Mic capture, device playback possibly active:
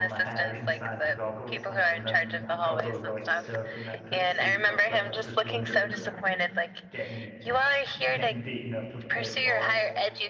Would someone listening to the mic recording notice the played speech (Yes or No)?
Yes